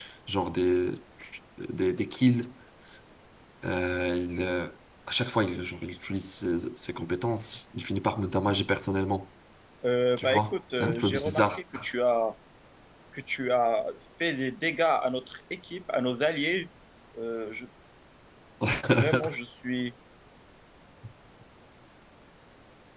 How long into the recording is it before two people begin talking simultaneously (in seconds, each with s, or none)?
10.2 s